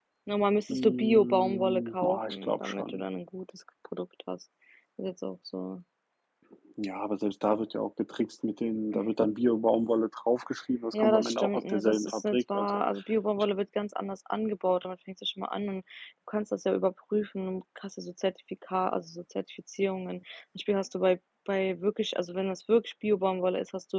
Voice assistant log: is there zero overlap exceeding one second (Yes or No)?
No